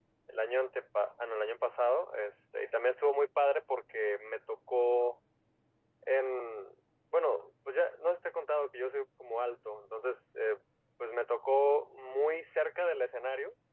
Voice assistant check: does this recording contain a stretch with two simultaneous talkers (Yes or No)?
No